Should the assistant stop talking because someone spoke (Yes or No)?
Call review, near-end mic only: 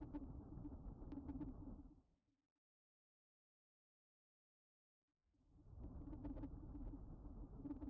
No